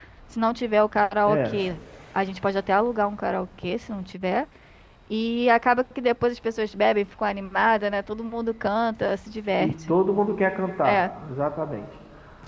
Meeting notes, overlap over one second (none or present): none